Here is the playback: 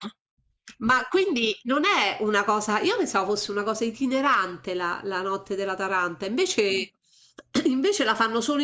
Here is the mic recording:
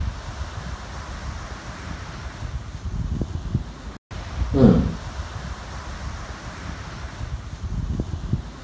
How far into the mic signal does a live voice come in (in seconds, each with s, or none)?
4.5 s